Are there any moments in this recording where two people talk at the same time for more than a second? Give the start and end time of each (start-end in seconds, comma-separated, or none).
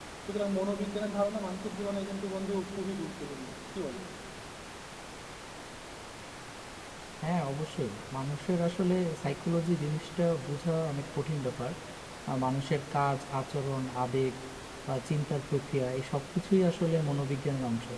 none